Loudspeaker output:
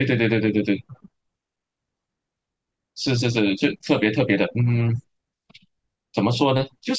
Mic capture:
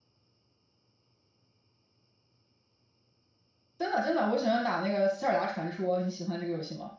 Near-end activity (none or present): present